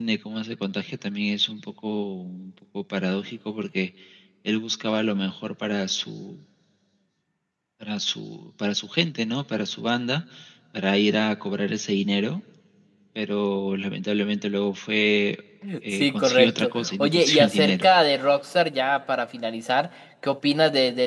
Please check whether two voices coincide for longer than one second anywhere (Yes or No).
Yes